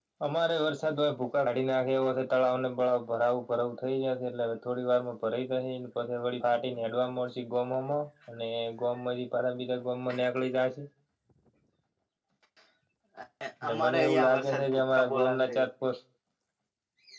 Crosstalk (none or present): present